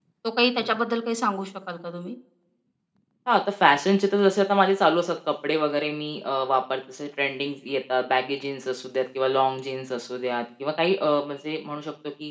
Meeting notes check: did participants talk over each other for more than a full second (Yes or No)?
No